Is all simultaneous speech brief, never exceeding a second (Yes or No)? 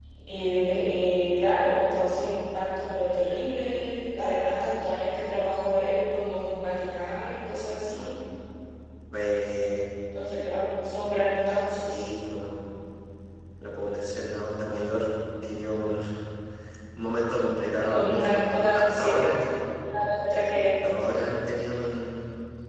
No